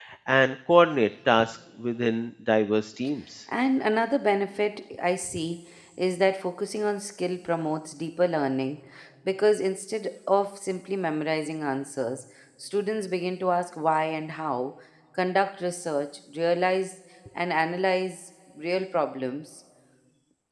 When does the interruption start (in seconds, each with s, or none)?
none